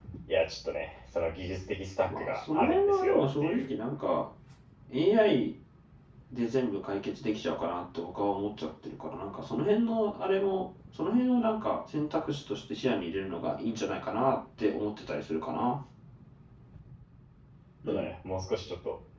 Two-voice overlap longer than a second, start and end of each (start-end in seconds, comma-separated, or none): 2.0-3.7